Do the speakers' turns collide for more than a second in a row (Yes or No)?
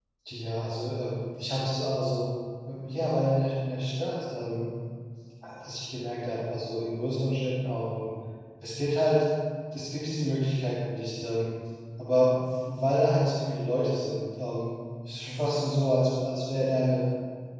No